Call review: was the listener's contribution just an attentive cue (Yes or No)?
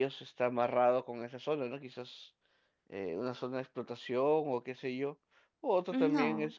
Yes